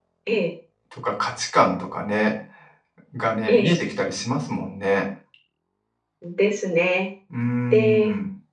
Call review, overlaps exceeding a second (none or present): none